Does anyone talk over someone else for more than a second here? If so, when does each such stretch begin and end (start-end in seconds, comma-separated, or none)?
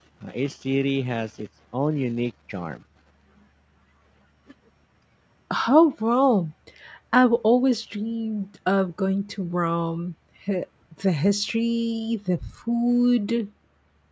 none